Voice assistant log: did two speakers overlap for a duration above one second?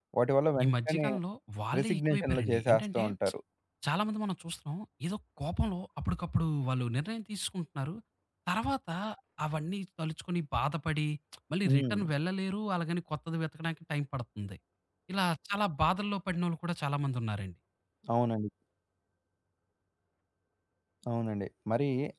Yes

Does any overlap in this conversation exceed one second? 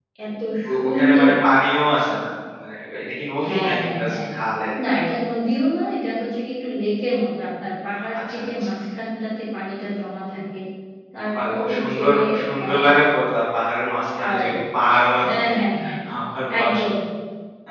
Yes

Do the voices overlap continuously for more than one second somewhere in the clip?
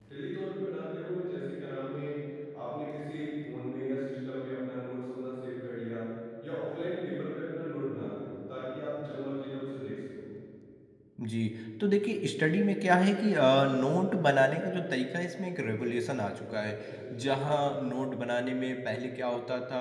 No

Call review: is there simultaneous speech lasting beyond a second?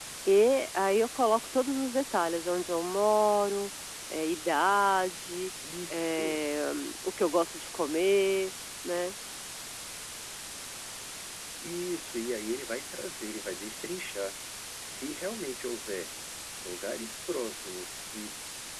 No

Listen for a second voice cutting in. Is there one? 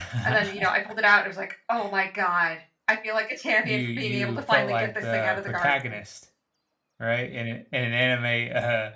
Yes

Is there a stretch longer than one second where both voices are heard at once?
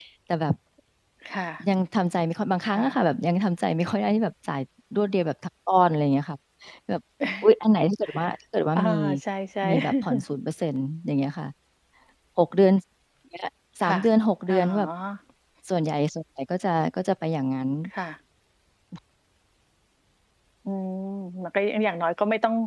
No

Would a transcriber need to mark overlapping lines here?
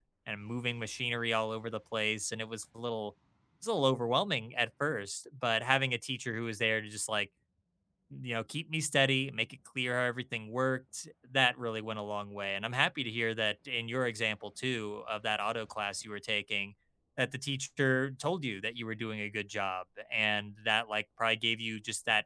No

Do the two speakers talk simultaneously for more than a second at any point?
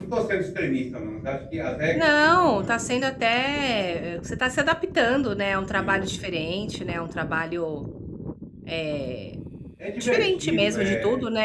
Yes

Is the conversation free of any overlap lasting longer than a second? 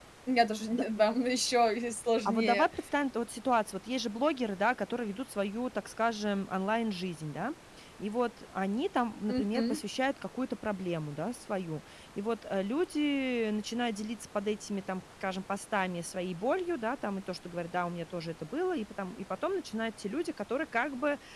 Yes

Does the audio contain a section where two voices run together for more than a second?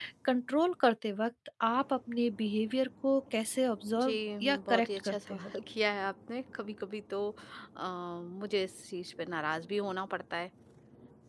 Yes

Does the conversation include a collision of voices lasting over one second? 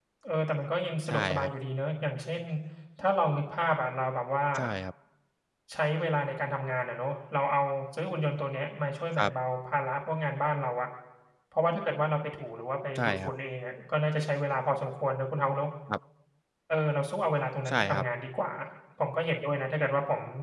No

